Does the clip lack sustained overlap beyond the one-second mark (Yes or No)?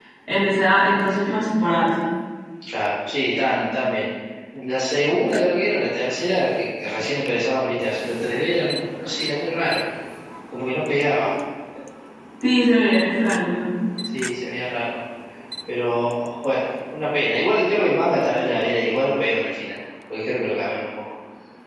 Yes